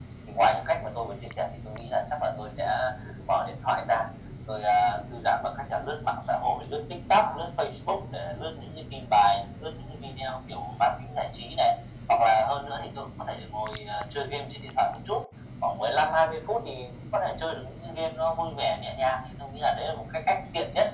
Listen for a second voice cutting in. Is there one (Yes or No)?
No